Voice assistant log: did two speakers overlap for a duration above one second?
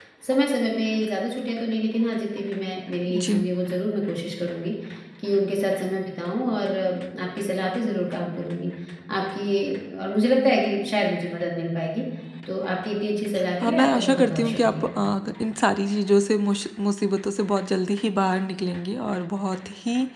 Yes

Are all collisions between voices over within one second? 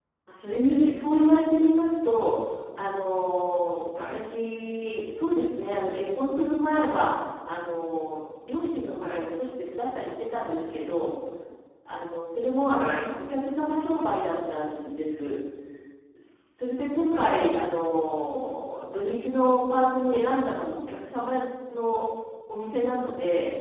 Yes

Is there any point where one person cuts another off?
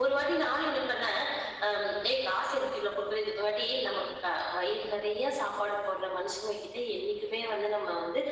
No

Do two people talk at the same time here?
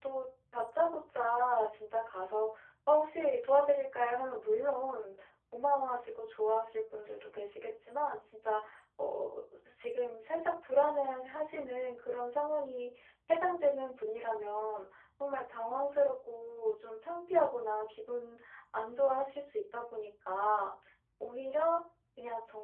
No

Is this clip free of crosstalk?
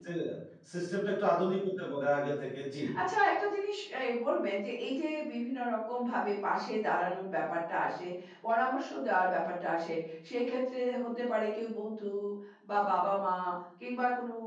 Yes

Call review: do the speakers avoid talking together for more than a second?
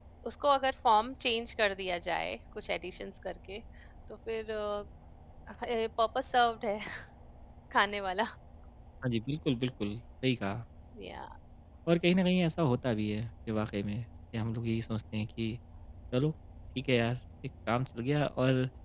Yes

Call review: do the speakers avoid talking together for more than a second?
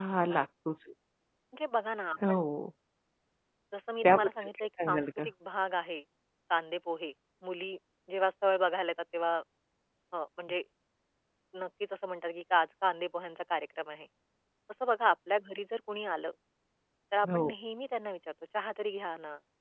No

